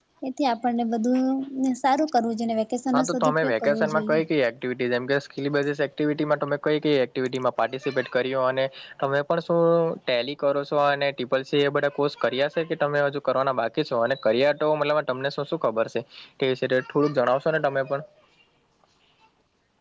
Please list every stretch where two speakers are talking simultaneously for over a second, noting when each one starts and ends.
2.9-4.2

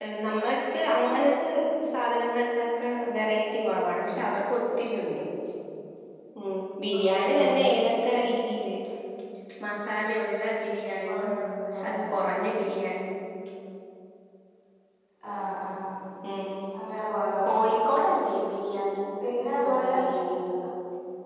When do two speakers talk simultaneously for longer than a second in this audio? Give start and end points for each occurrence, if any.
none

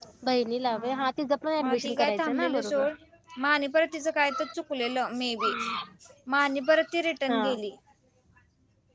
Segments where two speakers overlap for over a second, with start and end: 1.6-2.8

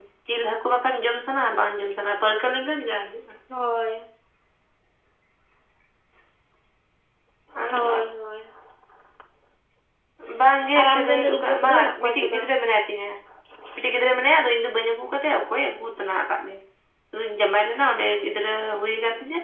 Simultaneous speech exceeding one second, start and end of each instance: 10.8-12.4

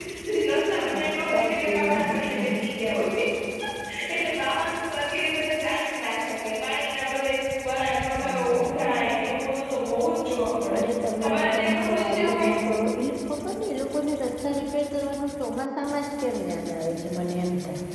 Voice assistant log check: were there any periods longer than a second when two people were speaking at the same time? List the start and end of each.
1.3-2.7, 11.2-12.5

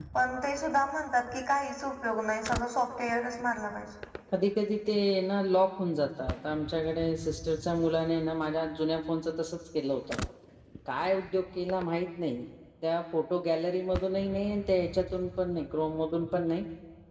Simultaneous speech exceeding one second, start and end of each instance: none

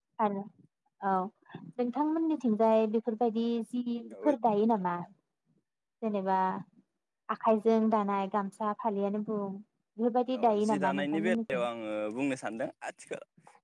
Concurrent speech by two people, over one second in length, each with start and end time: 10.4-11.6

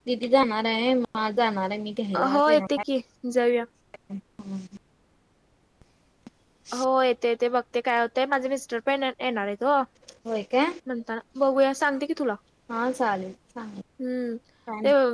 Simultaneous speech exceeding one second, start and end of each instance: none

